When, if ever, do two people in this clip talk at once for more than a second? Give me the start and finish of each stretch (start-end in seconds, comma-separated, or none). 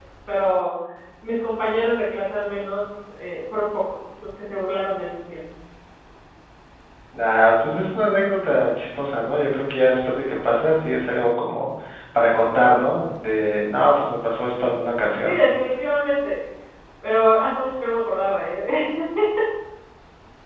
none